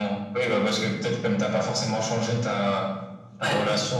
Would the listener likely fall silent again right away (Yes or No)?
Yes